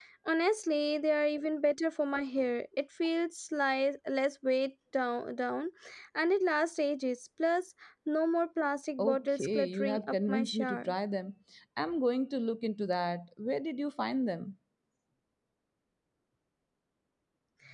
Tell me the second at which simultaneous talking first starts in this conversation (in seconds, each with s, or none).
9.0 s